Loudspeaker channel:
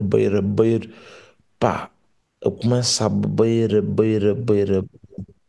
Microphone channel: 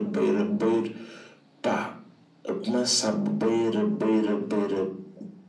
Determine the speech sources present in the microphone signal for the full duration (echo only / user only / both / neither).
echo only